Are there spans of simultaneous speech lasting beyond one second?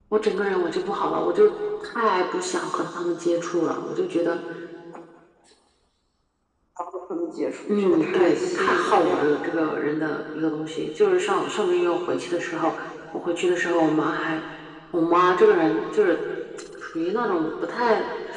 Yes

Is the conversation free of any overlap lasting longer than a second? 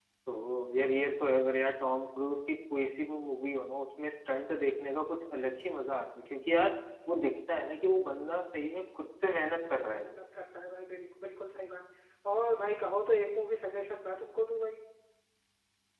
Yes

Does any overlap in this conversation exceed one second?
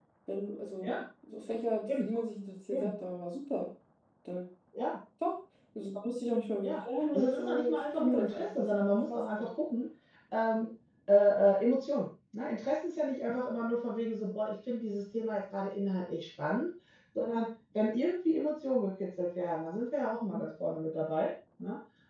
Yes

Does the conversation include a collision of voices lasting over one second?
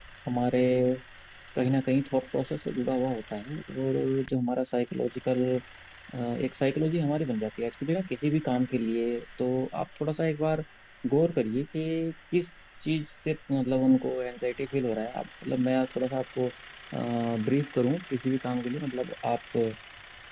No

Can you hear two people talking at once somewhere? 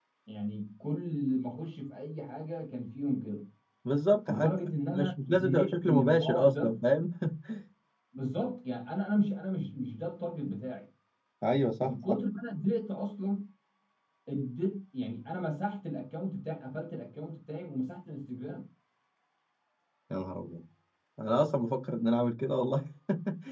Yes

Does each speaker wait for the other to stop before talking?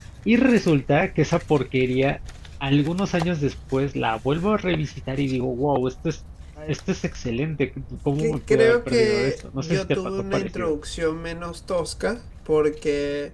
No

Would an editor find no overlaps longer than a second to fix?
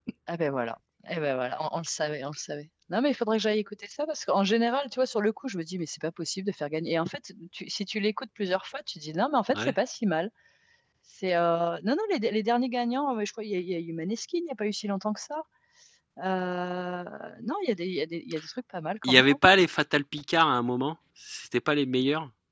Yes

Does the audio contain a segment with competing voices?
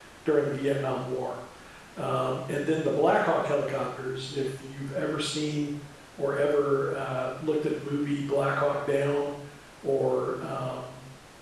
No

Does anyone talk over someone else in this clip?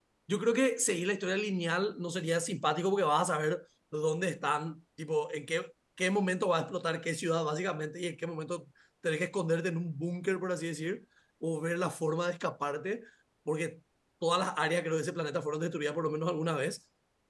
No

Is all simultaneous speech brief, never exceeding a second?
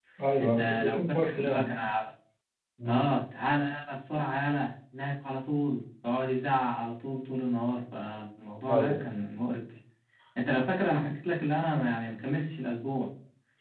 No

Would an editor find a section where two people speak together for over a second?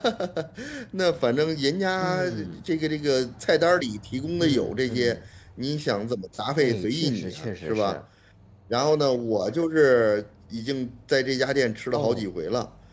Yes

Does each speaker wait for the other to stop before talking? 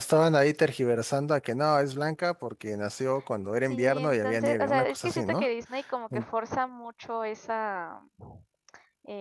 No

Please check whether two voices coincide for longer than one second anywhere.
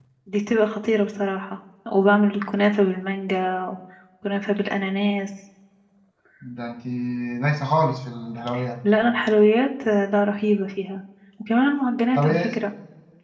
No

